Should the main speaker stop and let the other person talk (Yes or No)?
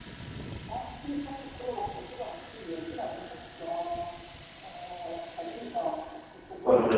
No